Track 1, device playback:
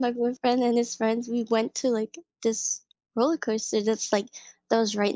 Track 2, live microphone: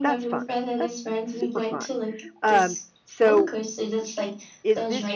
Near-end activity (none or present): present